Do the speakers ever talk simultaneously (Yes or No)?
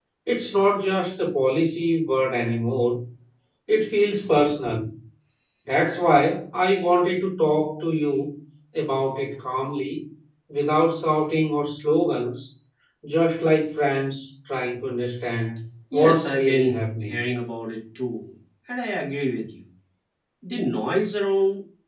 Yes